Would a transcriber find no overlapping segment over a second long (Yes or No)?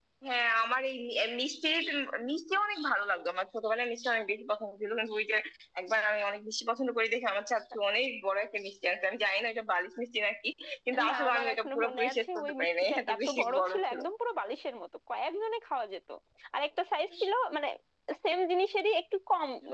No